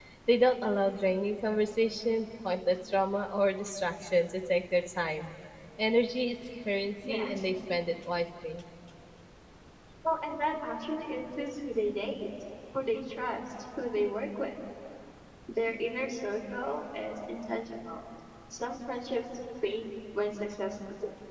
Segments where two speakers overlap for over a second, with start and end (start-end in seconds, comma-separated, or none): none